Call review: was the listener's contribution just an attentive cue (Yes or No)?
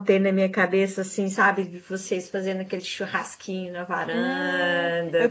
No